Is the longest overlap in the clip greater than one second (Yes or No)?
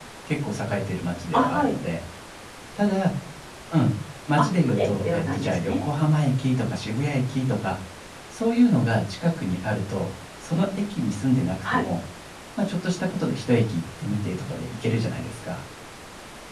Yes